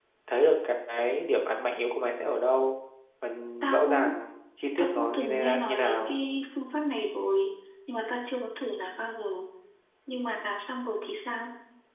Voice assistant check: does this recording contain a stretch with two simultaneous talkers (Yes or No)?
Yes